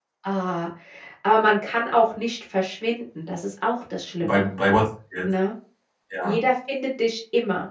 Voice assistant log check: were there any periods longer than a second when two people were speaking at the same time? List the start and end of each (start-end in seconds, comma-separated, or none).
none